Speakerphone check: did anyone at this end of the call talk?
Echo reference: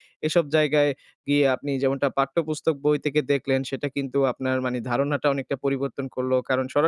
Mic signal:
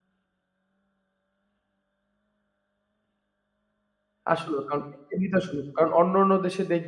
Yes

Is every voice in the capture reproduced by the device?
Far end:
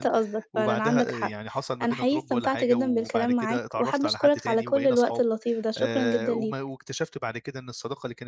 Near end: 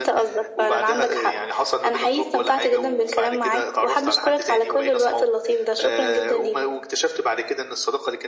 Yes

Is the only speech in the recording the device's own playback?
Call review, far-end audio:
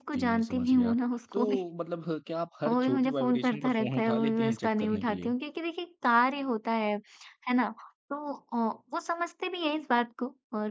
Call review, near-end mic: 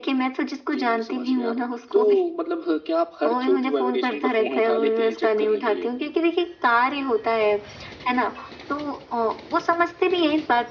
Yes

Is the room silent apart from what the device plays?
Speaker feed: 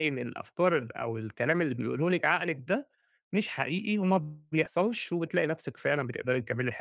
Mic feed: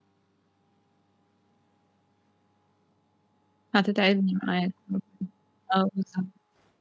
No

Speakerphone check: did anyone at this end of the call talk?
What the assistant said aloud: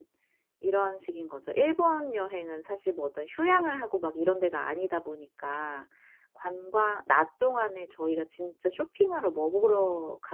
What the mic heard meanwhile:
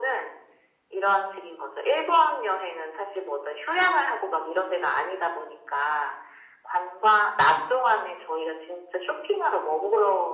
No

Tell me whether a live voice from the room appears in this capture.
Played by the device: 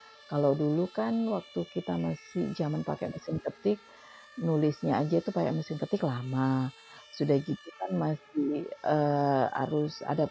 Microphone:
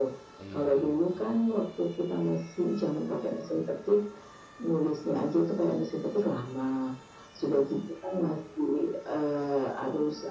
Yes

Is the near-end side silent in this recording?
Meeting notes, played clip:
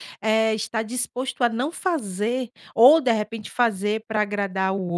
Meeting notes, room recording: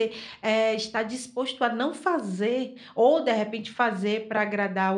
Yes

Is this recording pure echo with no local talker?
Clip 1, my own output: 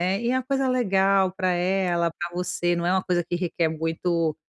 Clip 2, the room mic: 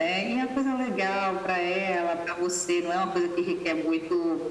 Yes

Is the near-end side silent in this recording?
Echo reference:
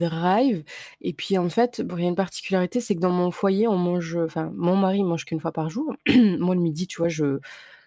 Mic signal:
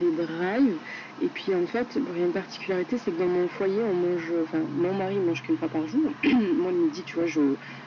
Yes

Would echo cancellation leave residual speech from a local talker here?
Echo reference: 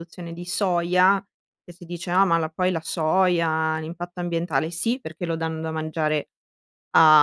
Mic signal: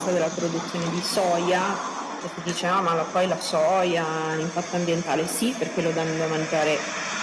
No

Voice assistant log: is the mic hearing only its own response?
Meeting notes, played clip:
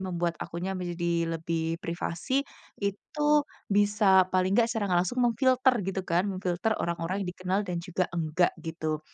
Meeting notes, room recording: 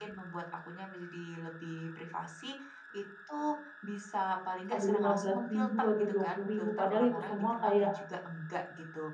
No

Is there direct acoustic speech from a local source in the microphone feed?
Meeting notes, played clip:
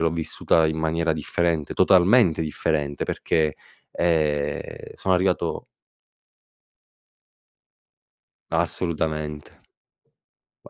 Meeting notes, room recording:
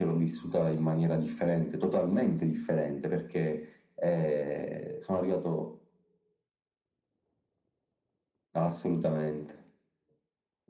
No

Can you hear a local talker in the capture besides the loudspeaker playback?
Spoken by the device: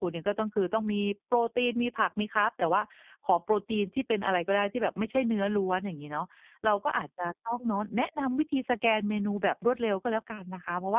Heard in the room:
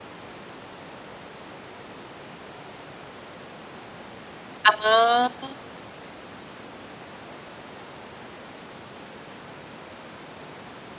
Yes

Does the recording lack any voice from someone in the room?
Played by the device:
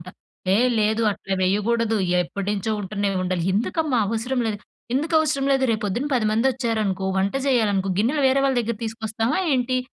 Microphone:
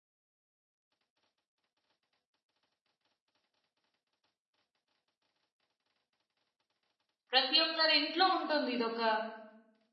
No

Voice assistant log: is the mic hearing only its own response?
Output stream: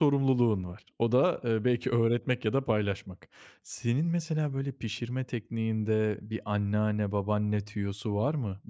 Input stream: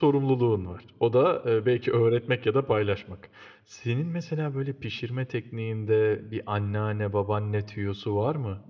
Yes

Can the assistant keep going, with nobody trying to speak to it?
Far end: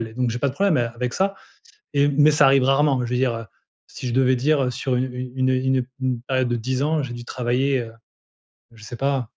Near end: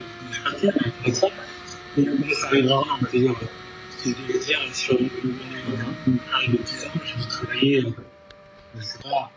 No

